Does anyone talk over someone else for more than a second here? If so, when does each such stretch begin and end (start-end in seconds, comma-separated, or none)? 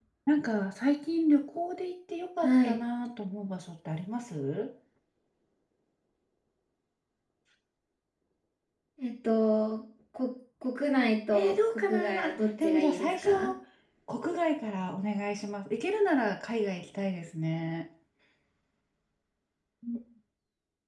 11.3-13.3